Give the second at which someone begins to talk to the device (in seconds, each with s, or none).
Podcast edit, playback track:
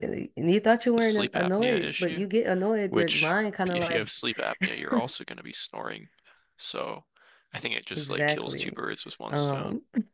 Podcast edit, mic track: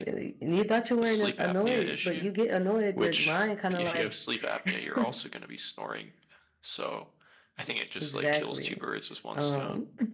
none